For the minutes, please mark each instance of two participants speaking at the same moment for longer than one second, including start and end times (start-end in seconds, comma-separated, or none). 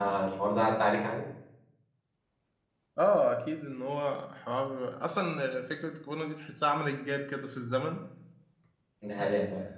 none